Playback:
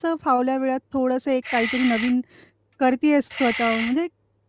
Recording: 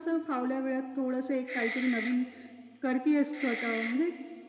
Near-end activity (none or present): none